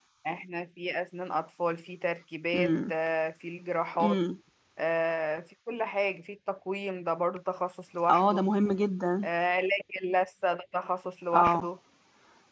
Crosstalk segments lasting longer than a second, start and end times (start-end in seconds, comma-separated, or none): none